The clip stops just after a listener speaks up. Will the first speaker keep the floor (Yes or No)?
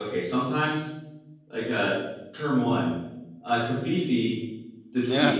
Yes